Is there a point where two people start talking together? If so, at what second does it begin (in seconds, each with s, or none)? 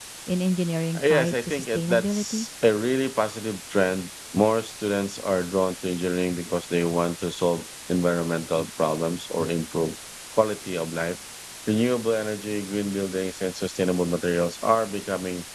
1.0 s